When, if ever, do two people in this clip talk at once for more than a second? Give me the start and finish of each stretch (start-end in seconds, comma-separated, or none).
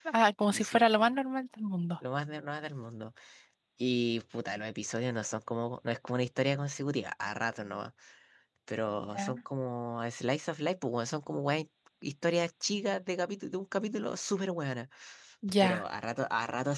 none